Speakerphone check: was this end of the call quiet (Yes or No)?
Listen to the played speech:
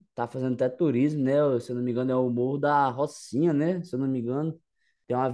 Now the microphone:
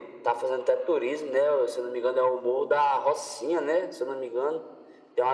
Yes